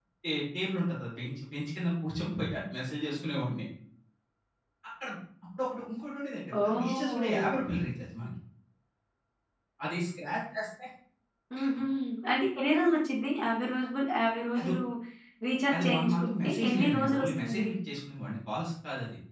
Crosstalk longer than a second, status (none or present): present